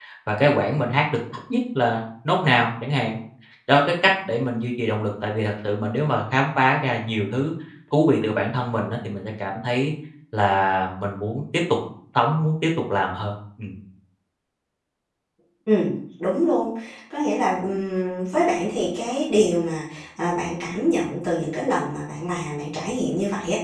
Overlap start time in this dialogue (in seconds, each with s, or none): none